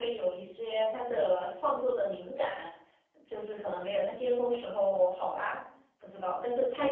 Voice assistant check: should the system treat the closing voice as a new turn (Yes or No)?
Yes